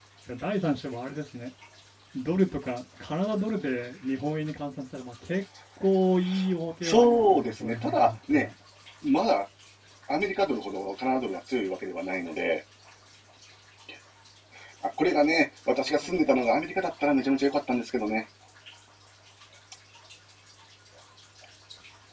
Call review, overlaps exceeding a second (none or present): present